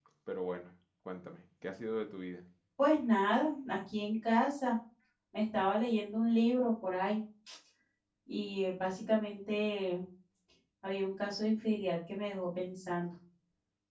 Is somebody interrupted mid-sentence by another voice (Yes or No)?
No